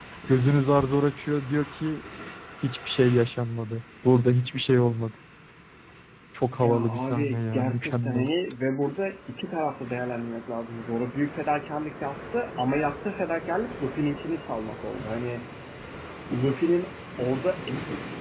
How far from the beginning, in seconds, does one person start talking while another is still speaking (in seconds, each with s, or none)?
6.6 s